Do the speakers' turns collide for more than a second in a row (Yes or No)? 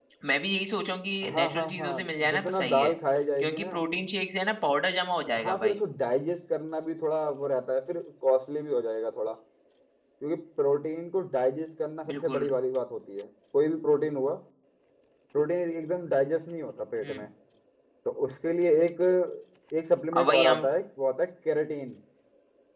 Yes